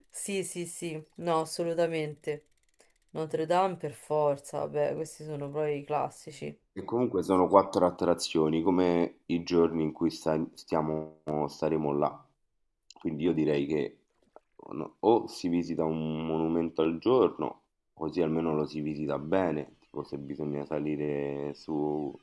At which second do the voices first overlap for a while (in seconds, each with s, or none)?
none